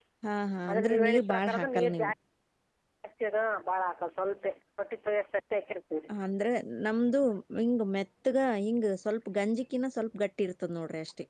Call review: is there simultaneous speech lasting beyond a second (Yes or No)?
Yes